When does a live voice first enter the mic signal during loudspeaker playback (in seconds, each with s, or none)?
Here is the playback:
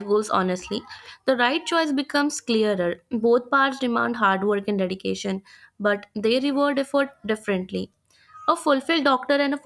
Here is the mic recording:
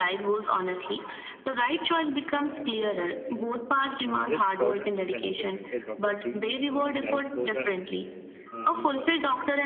2.3 s